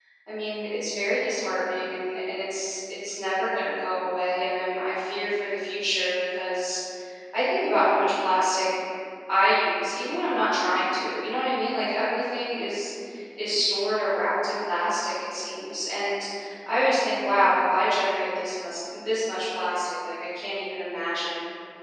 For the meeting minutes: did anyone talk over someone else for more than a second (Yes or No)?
No